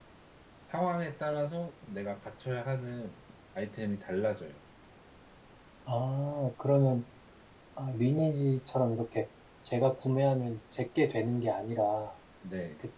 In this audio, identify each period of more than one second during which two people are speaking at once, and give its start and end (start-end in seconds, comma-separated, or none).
none